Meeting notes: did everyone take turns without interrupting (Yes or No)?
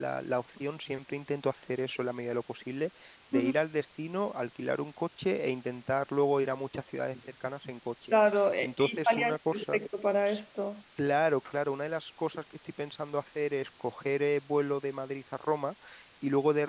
No